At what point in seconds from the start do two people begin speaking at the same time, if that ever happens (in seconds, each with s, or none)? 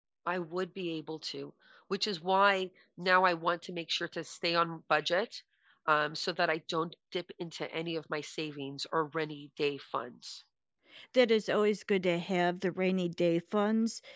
none